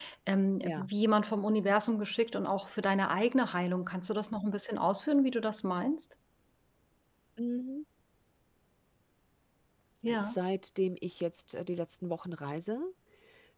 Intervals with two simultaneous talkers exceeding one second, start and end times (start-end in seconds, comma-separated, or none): none